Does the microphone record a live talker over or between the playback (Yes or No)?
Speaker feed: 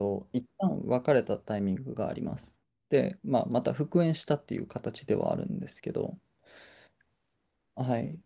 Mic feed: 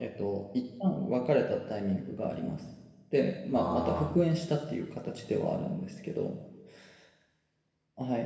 Yes